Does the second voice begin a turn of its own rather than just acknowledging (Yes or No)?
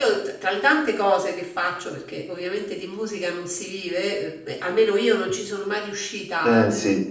No